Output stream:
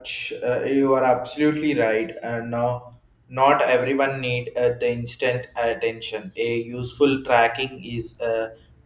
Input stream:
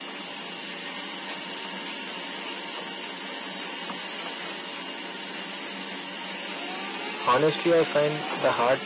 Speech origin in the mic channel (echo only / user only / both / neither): user only